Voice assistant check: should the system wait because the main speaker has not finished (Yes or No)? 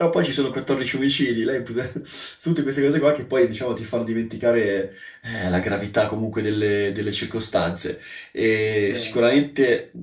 Yes